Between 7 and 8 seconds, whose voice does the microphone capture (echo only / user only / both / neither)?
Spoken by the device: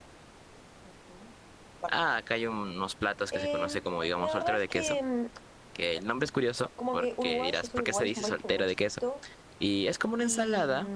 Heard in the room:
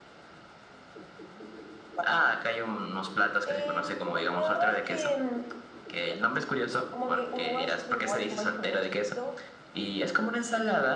echo only